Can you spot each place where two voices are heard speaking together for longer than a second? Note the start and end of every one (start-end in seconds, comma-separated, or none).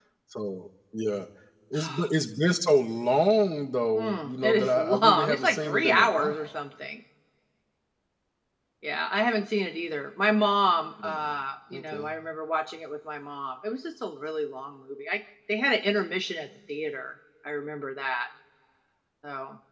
4.0-6.5